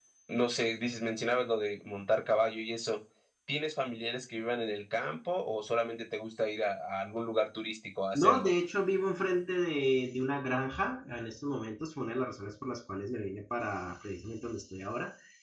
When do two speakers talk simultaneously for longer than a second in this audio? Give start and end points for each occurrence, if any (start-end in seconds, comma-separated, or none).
none